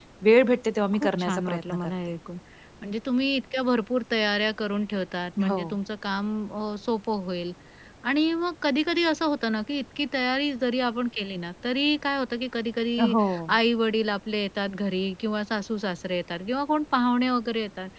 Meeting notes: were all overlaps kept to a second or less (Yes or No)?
No